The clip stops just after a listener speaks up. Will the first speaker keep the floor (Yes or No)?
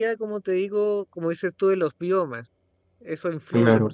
No